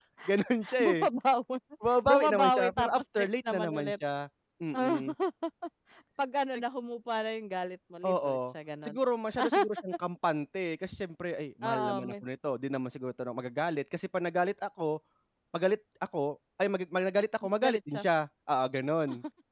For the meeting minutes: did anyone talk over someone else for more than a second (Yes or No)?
Yes